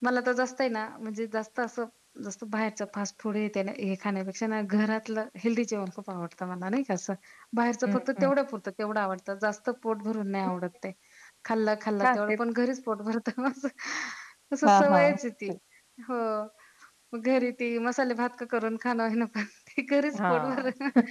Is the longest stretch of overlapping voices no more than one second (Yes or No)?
Yes